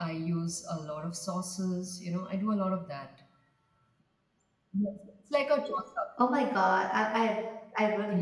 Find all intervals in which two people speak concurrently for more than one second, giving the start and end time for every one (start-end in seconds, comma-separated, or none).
none